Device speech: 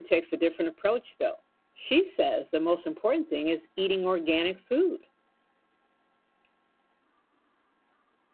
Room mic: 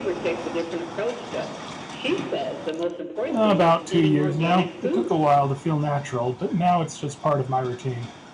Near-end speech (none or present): present